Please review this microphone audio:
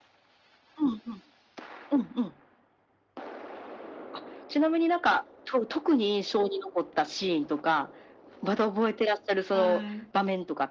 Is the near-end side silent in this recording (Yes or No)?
No